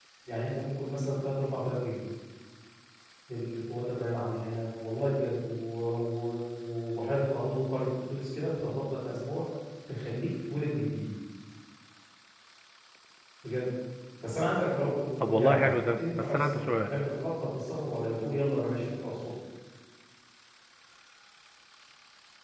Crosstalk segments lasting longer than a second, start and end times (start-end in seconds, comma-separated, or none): 15.2-16.9